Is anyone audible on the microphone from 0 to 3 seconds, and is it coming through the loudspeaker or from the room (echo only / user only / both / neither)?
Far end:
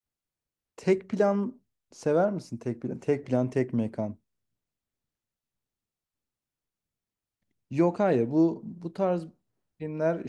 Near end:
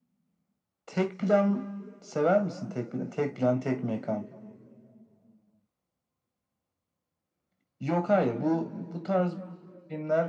echo only